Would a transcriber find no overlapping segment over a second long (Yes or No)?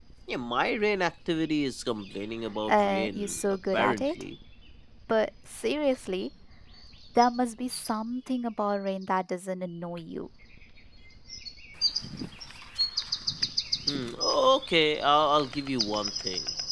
No